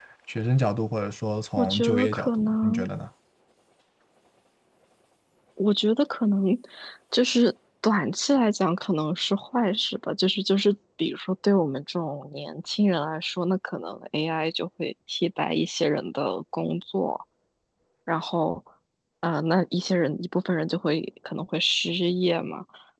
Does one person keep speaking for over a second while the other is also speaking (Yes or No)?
Yes